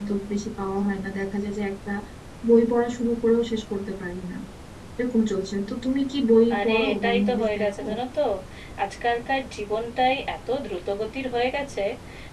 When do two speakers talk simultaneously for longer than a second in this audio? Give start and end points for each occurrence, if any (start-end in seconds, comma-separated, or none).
6.5-7.8